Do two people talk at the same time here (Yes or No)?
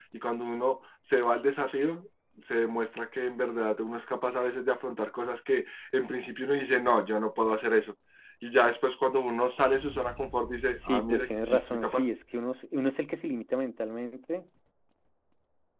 Yes